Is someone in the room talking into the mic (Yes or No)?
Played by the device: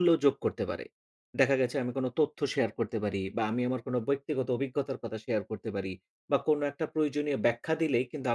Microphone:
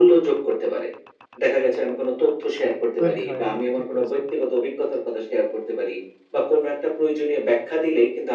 Yes